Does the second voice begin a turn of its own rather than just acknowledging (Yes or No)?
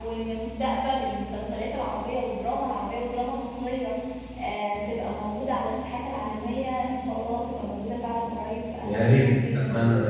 Yes